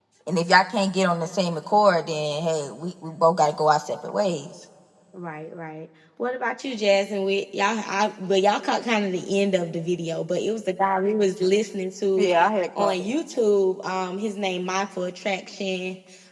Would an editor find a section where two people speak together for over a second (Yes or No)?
No